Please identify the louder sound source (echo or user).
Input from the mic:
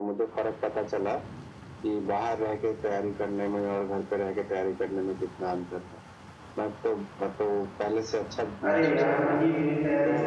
user